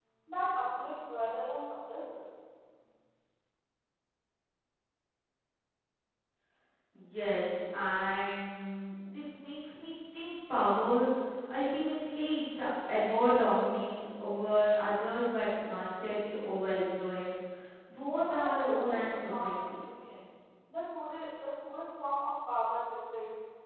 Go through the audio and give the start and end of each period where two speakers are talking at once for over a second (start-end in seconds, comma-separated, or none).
18.1-20.0